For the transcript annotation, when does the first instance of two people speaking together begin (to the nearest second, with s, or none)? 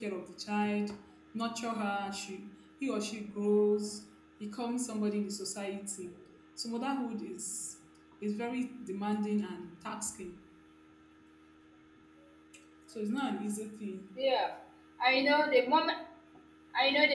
none